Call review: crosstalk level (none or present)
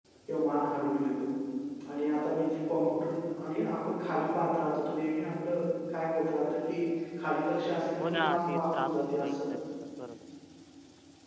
present